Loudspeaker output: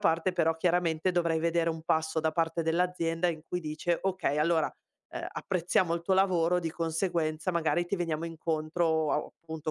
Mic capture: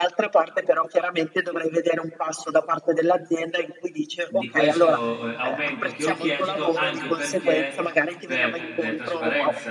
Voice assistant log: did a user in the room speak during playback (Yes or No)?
Yes